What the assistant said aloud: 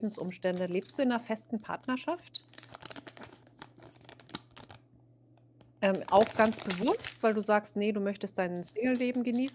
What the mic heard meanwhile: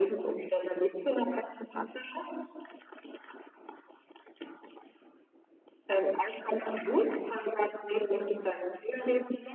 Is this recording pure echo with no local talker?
Yes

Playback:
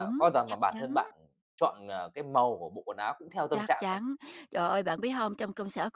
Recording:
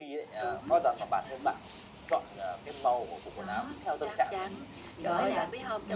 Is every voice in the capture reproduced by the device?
No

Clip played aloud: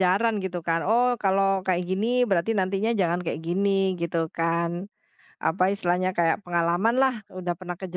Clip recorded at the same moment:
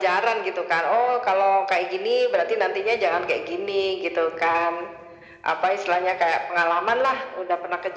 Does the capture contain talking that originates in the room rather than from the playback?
No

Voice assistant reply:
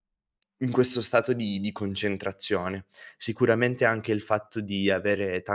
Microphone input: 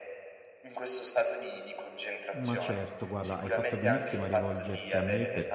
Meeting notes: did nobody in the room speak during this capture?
No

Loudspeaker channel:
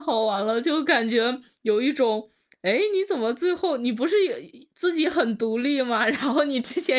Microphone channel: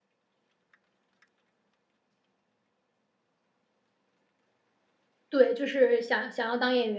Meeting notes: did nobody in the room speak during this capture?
No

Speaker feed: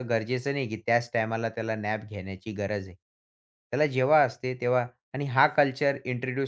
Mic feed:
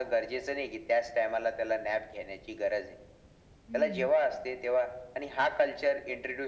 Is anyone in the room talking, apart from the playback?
Yes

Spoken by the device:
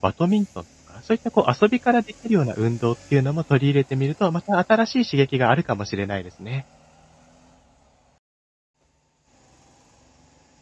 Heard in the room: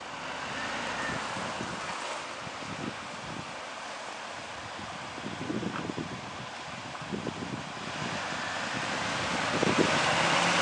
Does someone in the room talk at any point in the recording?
No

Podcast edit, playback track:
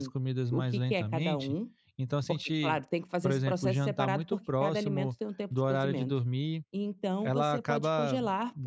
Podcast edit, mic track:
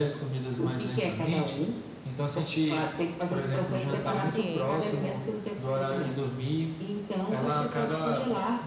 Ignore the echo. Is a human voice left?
Yes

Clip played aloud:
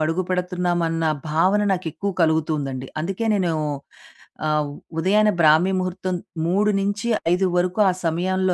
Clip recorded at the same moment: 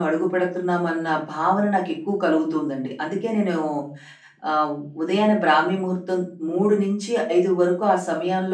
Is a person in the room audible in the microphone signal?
No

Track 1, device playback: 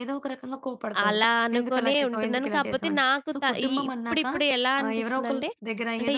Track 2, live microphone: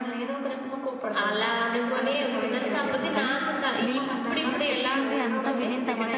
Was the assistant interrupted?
Yes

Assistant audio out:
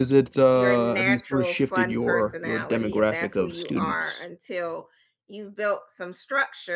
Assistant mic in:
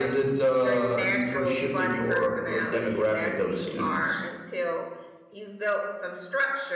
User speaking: No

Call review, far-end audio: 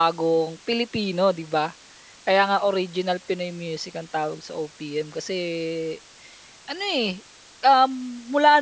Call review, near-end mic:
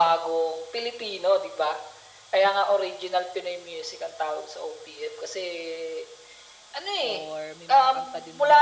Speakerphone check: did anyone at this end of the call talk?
Yes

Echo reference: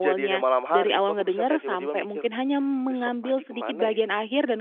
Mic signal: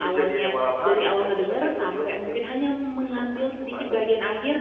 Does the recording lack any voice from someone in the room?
Yes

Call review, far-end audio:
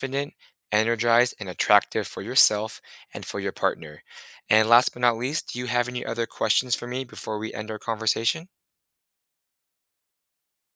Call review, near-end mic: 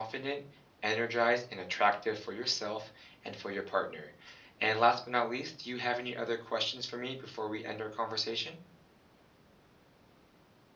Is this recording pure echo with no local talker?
Yes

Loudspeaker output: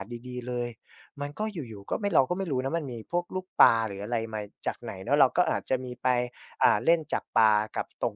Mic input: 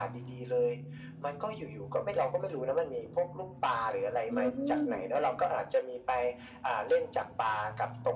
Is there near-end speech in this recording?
Yes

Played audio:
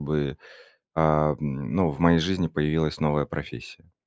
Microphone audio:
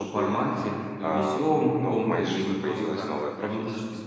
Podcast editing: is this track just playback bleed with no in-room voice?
No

